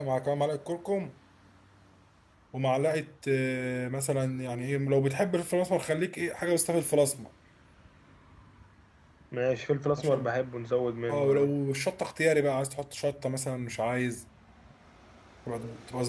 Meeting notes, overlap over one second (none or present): none